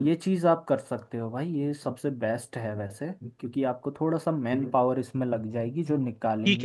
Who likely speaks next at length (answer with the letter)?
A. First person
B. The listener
B